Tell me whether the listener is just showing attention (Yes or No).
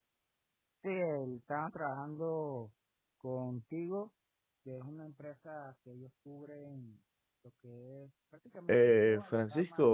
No